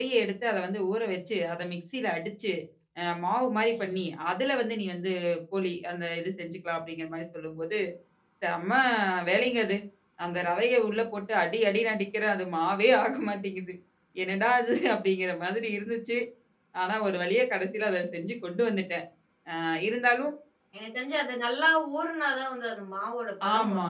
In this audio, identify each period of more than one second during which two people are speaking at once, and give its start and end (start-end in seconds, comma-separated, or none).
none